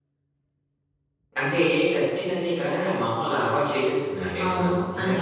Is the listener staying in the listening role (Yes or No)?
No